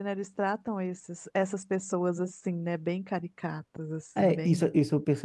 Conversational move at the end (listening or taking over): taking over